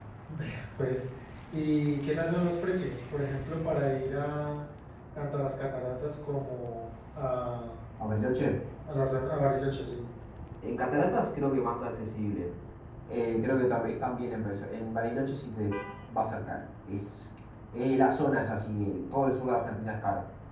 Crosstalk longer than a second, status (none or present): none